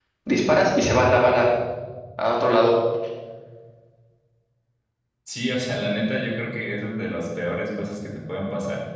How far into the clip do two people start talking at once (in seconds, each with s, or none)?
none